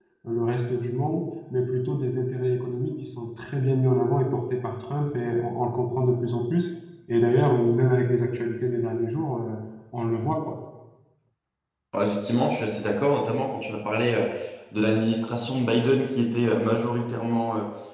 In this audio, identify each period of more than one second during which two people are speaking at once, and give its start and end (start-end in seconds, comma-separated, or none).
none